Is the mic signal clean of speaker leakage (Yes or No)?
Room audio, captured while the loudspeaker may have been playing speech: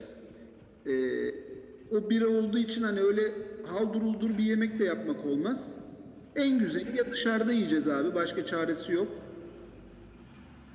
No